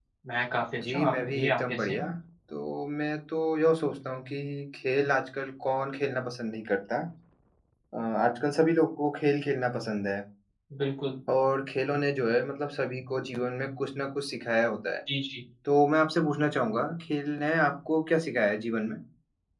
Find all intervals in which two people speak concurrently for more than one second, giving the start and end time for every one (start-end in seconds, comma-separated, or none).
0.8-2.0